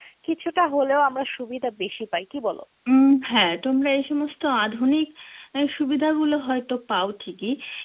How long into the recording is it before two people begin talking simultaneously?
none

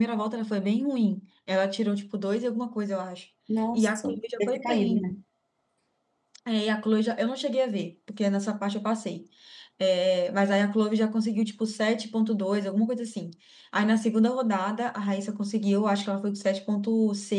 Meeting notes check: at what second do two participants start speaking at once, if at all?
3.7 s

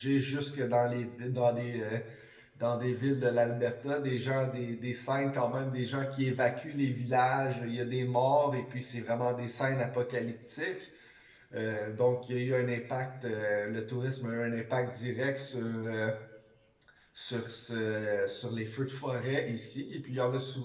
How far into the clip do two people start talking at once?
none

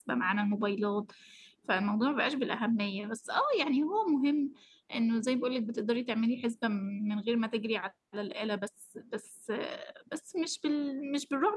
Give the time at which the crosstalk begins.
none

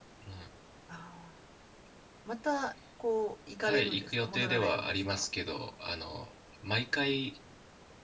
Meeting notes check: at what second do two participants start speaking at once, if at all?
3.6 s

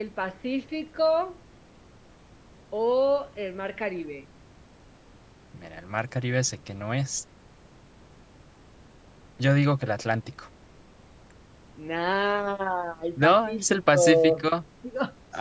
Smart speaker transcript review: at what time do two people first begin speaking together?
13.2 s

